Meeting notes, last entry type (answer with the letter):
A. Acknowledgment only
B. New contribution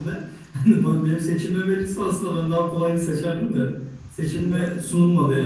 A